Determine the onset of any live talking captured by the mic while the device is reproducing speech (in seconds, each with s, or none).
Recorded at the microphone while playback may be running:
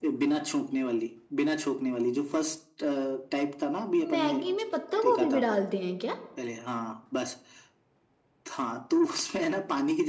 4.1 s